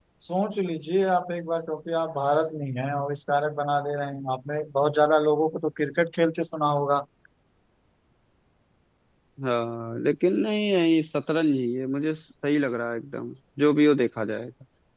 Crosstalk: none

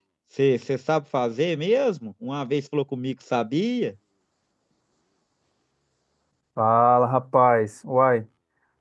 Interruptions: none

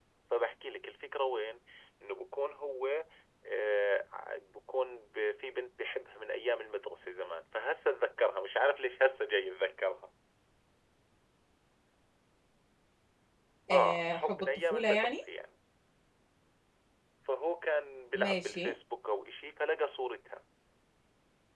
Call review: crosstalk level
present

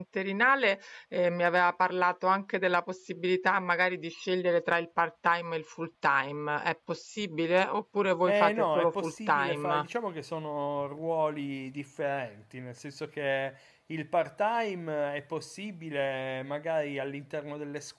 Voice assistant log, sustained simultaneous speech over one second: present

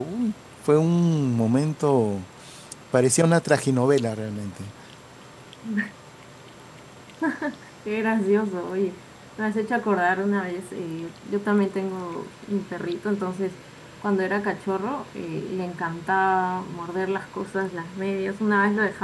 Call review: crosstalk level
none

